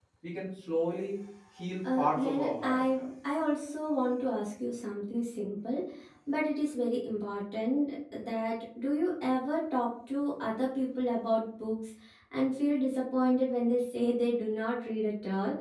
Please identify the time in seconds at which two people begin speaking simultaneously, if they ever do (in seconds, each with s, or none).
1.8 s